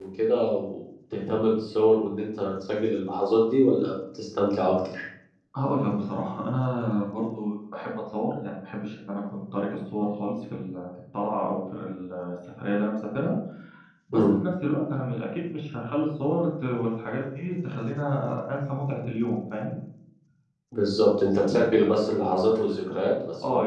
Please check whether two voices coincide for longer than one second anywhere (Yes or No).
No